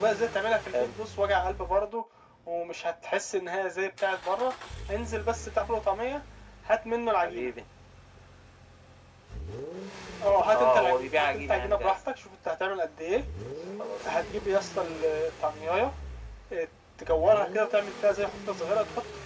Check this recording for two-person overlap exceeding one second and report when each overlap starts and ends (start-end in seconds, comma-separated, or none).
10.5-12.0